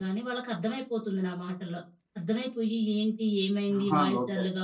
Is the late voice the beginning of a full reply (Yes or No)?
No